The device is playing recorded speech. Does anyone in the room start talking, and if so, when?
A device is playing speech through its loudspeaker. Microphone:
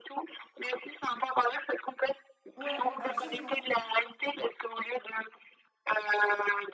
2.6 s

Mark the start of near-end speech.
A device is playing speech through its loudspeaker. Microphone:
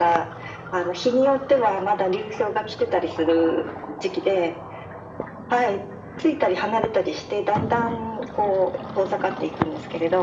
none

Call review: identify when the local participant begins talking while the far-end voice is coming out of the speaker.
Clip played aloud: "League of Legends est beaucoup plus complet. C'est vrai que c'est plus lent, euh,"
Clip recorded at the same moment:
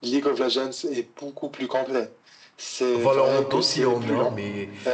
2.9 s

